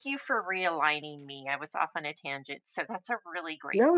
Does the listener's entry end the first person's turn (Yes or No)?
Yes